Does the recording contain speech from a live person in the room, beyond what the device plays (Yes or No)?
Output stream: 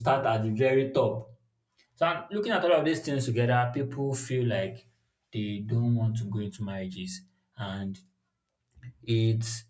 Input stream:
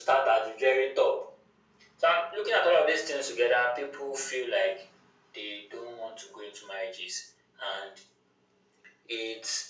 No